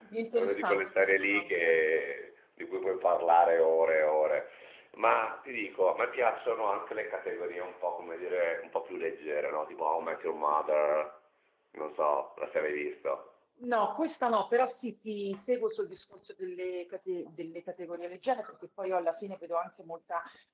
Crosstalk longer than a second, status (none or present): present